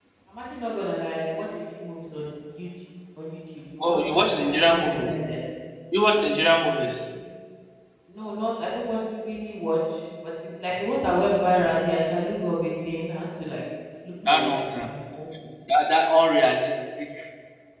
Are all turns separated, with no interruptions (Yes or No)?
No